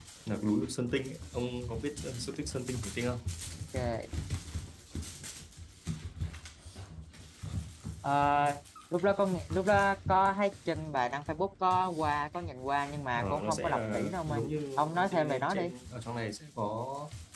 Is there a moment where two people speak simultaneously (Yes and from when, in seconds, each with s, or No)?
Yes, from 13.2 s